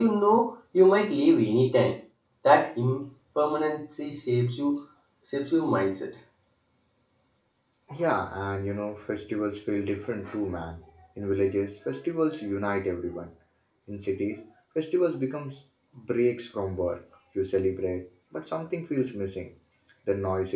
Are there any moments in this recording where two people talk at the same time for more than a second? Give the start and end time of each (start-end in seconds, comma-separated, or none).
none